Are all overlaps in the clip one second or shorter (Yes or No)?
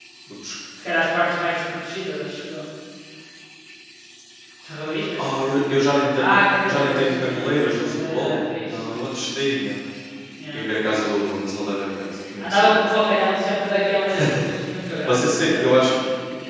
No